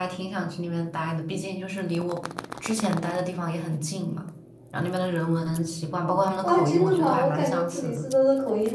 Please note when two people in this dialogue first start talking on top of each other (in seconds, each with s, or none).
6.4 s